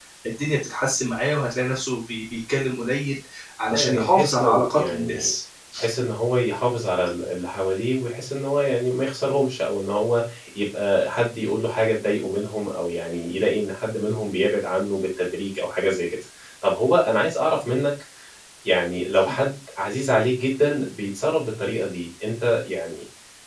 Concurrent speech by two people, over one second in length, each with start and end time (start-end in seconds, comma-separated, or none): 3.7-5.3